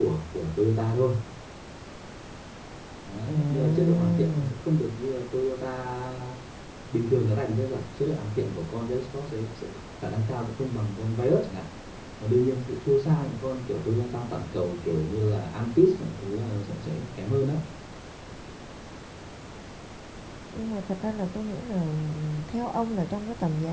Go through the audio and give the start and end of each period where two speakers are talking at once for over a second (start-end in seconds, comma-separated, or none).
3.2-4.6